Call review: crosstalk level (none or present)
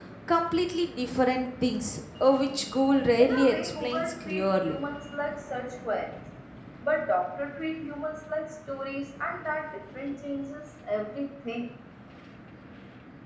present